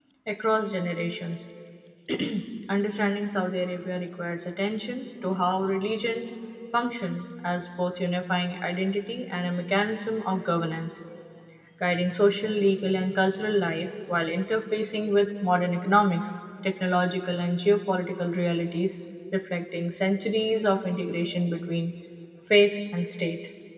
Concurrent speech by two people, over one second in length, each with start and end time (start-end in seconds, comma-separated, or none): none